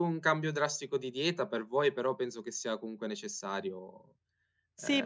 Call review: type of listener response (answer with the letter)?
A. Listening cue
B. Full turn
B